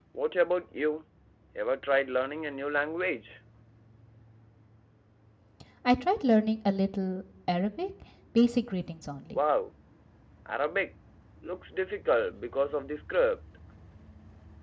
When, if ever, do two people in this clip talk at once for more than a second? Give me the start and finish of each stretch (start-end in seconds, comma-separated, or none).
none